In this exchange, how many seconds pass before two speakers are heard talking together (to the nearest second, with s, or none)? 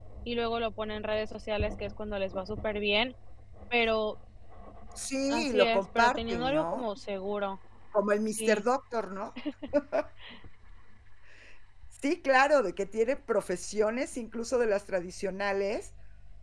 5 s